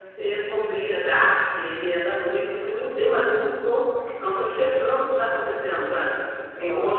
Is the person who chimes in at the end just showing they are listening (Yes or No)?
No